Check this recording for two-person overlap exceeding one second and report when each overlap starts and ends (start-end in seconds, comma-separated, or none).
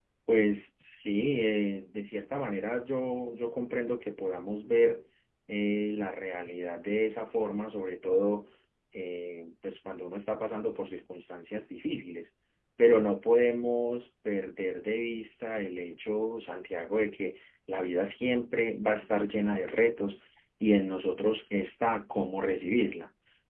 none